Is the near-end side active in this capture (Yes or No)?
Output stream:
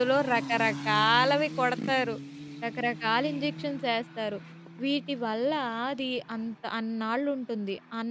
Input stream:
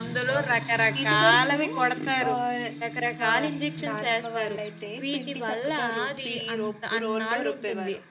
Yes